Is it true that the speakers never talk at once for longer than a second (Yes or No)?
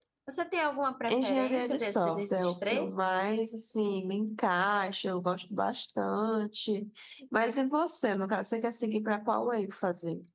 No